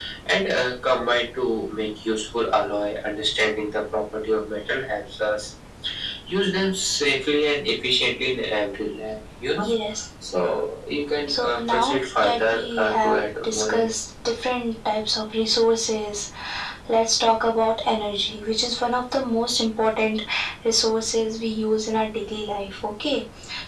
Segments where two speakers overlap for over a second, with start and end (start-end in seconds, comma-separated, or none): 11.3-13.9